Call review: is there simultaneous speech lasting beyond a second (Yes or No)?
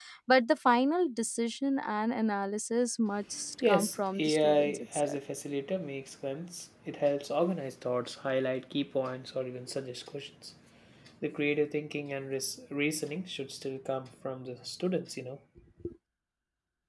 Yes